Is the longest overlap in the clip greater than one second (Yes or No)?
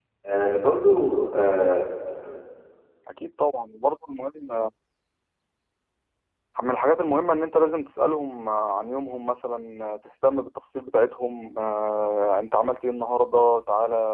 No